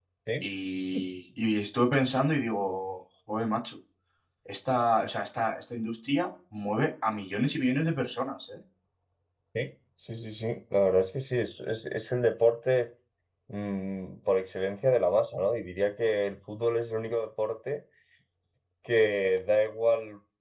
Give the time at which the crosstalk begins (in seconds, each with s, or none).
none